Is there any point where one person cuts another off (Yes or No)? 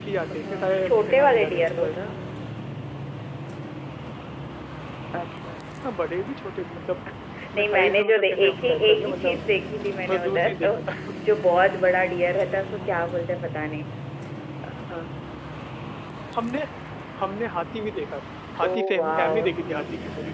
Yes